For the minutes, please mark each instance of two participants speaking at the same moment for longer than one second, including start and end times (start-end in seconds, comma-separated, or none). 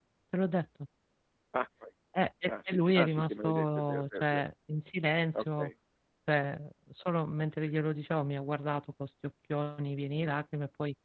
2.5-4.4